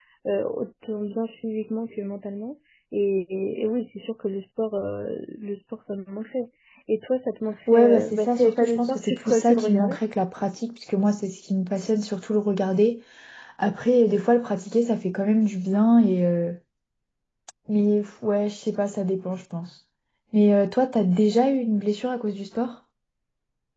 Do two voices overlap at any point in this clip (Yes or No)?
Yes